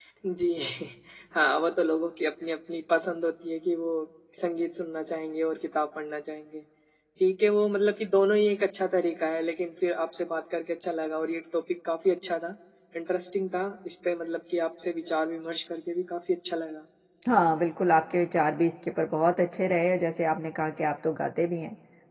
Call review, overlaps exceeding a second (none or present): none